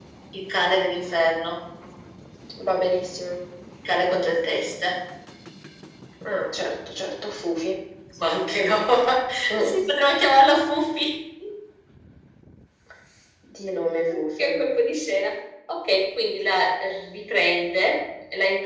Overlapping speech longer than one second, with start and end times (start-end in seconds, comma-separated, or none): none